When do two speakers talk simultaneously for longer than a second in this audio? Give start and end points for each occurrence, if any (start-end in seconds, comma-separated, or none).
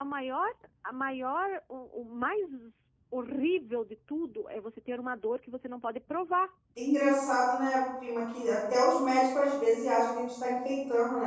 none